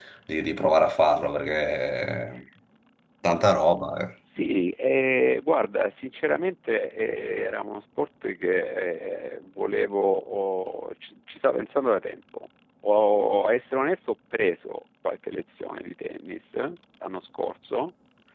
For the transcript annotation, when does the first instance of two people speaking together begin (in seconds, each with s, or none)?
none